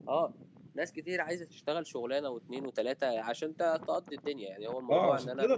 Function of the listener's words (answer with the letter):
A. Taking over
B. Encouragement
A